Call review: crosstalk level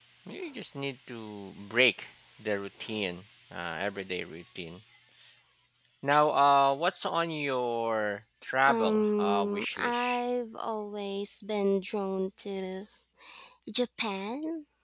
present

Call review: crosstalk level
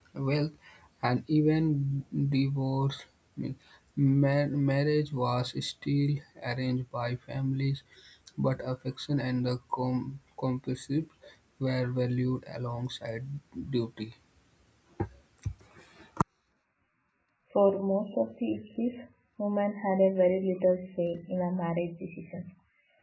none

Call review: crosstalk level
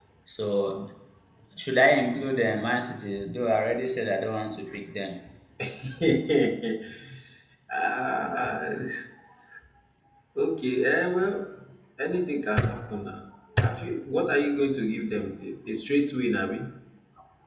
none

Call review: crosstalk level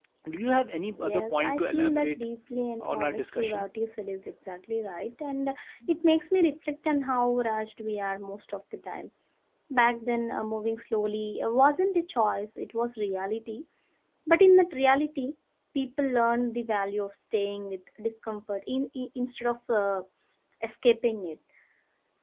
present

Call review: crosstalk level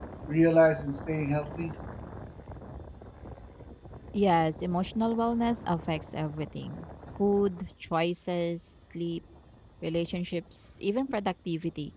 none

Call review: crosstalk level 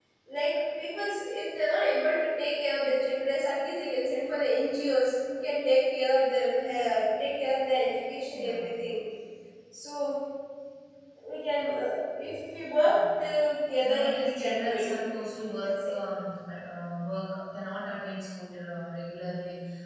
present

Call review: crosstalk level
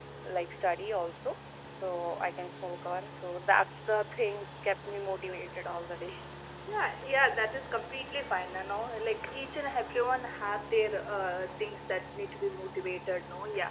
none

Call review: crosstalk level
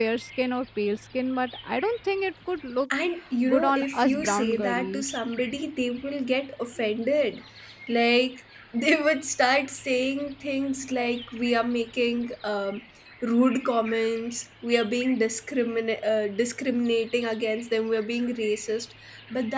present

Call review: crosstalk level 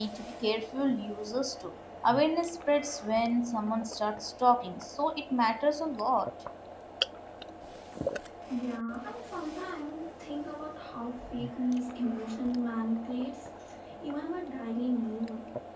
none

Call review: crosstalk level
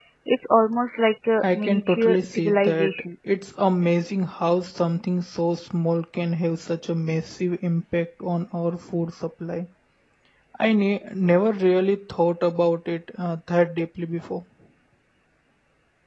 present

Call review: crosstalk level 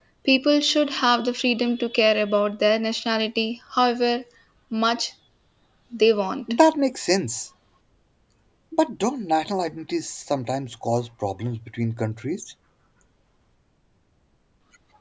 none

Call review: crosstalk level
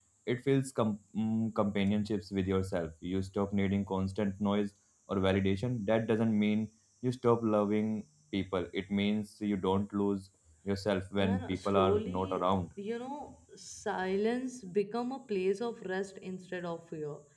present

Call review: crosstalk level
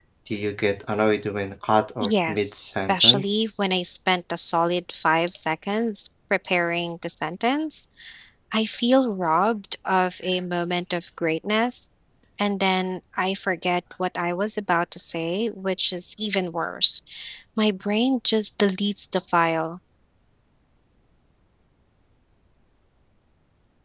present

